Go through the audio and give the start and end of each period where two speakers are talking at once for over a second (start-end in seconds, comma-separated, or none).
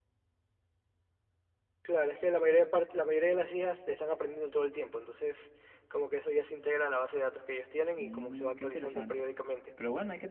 8.0-9.2